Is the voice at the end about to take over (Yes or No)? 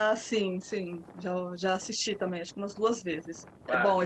Yes